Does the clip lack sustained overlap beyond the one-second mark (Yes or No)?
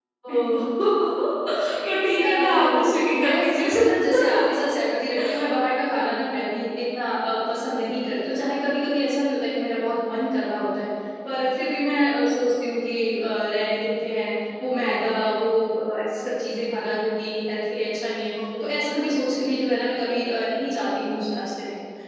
No